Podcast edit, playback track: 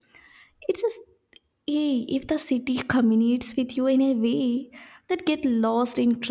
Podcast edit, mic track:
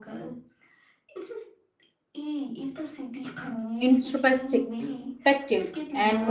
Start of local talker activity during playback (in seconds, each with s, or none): 3.8 s